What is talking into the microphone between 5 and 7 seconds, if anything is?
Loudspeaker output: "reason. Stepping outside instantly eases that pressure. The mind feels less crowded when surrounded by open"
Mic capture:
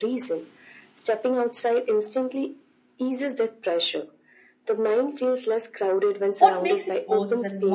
both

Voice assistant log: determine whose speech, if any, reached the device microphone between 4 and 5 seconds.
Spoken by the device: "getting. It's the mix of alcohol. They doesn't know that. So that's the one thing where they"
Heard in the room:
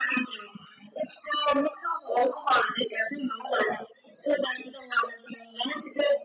echo only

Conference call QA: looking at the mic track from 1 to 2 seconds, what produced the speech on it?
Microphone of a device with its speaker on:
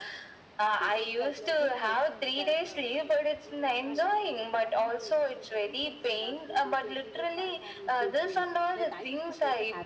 both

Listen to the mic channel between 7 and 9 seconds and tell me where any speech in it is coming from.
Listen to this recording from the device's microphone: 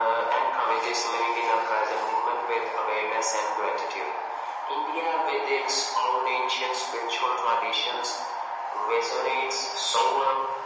echo only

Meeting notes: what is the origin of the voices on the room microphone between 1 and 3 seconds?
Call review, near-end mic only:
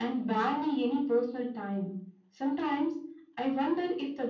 echo only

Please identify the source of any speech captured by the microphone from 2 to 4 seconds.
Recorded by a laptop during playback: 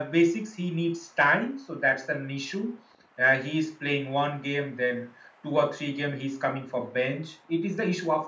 echo only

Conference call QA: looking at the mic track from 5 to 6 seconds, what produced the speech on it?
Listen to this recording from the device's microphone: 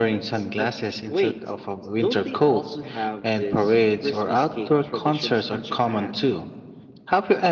echo only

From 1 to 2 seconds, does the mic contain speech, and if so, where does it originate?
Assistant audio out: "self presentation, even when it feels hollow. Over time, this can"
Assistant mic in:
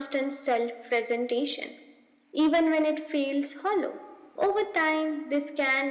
echo only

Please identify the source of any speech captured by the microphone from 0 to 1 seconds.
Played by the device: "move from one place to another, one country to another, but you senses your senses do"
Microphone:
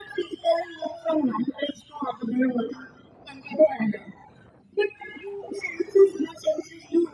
echo only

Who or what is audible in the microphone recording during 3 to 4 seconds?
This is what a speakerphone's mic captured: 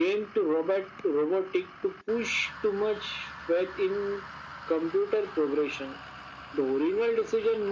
echo only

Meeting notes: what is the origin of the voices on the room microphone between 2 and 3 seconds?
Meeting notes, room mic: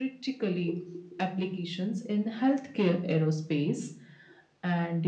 echo only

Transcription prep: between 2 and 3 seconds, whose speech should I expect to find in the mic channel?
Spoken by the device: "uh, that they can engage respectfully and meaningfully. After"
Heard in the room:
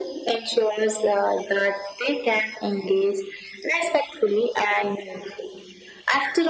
echo only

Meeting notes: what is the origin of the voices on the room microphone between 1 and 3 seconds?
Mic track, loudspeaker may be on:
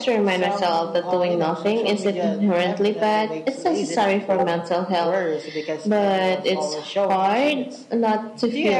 echo only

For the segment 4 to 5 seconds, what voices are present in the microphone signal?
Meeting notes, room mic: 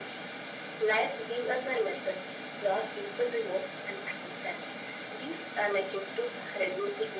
echo only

